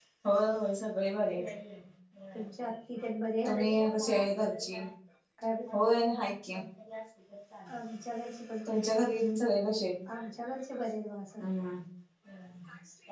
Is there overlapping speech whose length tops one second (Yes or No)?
No